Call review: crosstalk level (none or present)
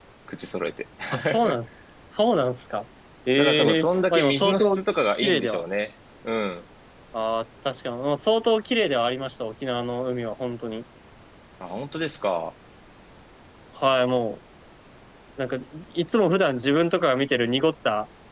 present